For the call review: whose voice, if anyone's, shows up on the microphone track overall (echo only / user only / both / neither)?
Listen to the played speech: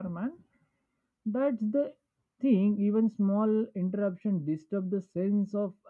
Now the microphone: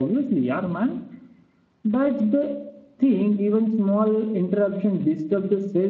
echo only